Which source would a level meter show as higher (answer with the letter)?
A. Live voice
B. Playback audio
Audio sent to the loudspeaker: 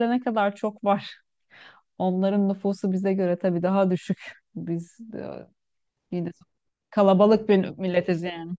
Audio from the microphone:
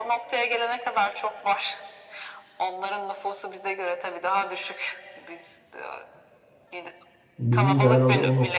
A